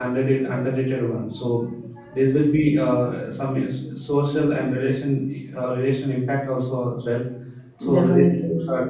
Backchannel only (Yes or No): Yes